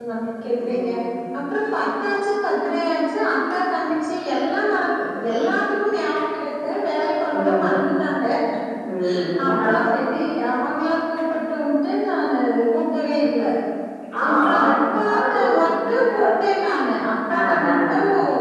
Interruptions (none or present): present